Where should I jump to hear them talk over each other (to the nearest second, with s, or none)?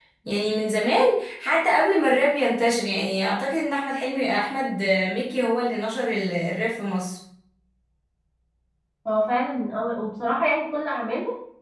none